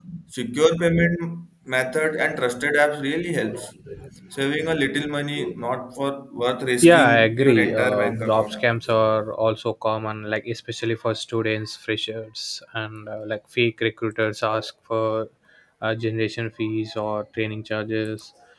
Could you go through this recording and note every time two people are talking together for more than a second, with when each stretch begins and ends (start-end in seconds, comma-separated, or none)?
6.8-8.7